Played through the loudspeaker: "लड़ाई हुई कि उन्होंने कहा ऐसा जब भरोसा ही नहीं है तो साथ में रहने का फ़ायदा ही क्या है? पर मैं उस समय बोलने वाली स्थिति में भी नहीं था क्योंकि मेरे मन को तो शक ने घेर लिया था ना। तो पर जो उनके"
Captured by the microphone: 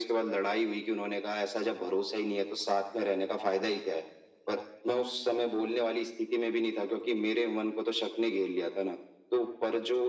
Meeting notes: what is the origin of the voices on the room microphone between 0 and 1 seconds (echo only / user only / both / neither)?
echo only